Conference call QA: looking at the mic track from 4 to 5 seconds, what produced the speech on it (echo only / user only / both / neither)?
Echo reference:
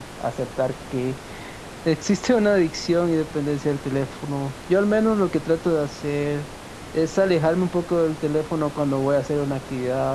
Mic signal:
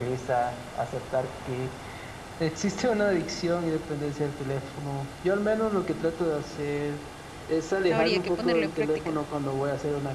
echo only